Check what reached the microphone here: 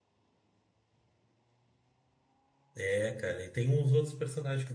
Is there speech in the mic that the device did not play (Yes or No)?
Yes